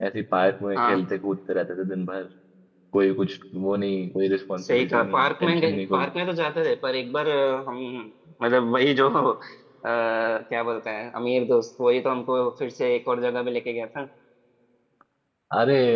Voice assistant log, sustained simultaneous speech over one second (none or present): present